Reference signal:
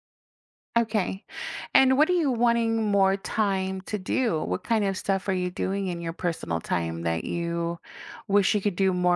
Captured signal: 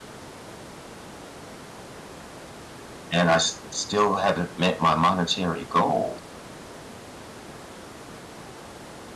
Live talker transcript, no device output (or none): and I s- still haven't met my monetary goal